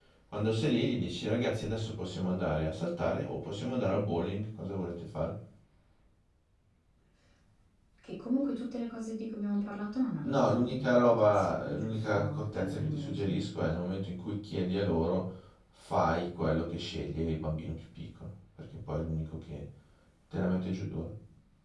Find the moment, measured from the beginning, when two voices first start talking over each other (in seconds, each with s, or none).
10.2 s